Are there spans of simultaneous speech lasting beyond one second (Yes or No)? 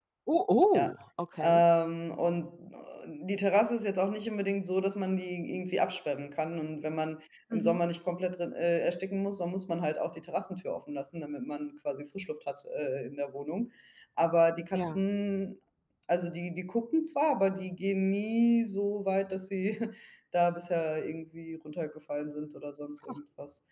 No